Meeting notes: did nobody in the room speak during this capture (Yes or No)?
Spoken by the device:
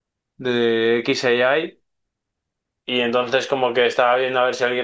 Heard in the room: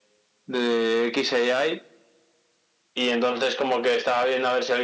Yes